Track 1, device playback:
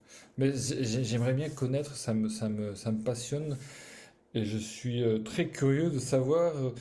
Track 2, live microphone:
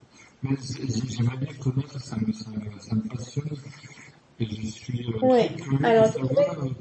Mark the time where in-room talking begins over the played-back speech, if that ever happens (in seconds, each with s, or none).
5.2 s